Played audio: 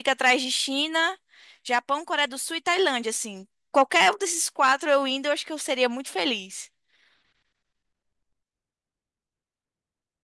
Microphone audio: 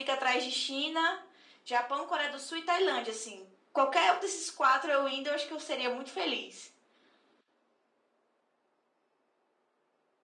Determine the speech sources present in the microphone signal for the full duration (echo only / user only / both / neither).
echo only